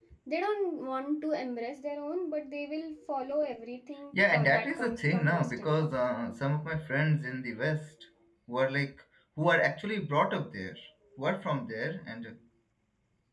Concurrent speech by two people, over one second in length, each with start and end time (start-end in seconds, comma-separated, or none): 4.1-5.9